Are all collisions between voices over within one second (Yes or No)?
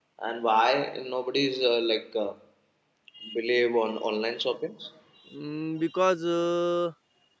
Yes